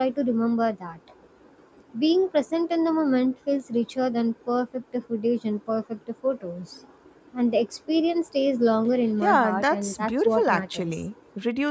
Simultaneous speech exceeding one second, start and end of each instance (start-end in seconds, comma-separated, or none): 9.2-11.0